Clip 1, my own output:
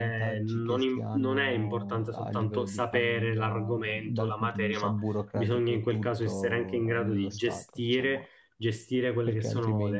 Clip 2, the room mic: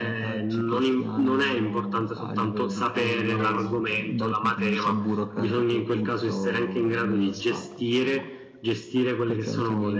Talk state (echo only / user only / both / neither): both